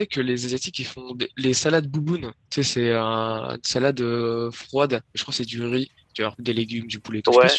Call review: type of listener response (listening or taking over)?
taking over